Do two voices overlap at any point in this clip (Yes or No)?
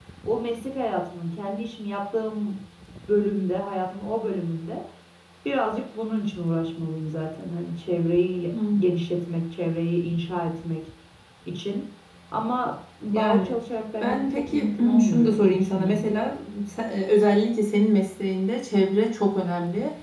Yes